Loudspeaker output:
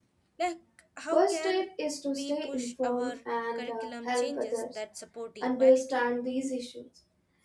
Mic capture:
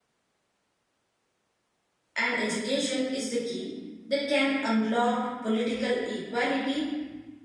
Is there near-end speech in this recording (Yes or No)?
Yes